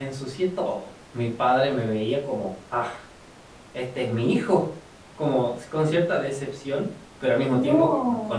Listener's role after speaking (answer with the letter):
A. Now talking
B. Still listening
B